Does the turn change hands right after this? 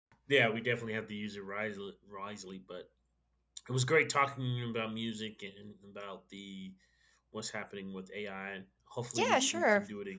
Yes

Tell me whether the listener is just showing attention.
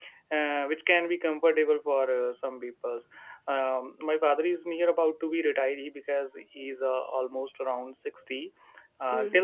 Yes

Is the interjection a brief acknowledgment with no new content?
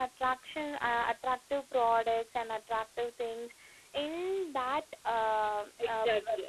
No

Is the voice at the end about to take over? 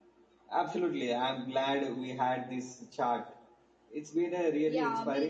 Yes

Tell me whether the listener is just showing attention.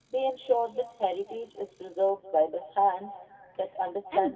No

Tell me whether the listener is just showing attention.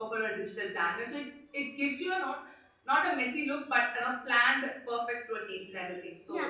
No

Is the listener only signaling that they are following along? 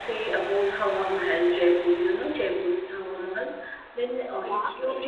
Yes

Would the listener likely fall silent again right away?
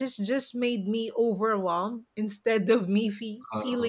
Yes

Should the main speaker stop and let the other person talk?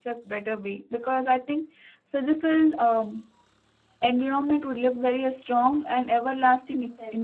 Yes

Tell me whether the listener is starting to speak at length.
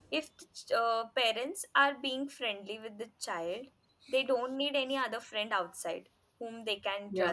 No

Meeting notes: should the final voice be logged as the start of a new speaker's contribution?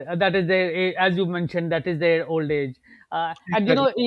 No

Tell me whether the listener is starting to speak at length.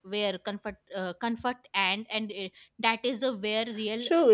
Yes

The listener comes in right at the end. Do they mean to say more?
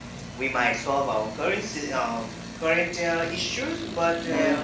No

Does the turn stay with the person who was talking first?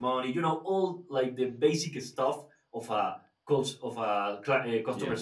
Yes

